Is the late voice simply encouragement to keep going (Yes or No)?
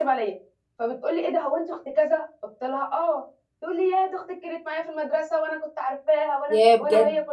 Yes